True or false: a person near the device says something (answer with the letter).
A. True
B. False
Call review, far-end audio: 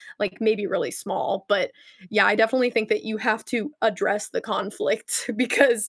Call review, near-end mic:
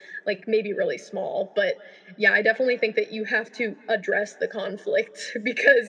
B